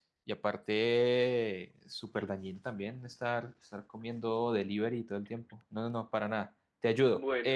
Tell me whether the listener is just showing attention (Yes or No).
No